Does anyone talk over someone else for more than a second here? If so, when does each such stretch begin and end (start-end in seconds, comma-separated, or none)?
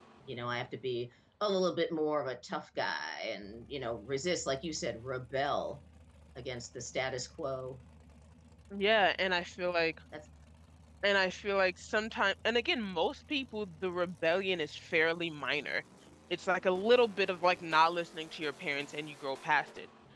none